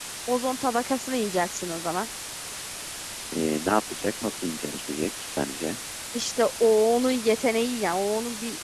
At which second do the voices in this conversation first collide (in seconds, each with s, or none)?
none